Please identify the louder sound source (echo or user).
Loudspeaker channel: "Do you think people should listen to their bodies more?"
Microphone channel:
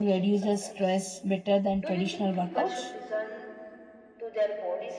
user